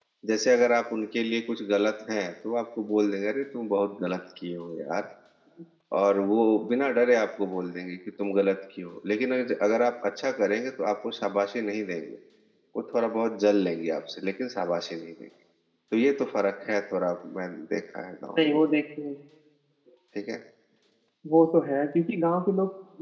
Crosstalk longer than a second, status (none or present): none